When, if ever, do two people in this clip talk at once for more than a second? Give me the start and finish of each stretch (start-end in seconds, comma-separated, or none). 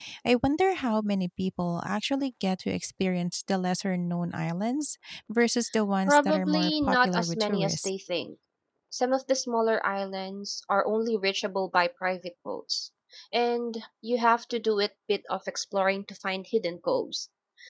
6.1-7.9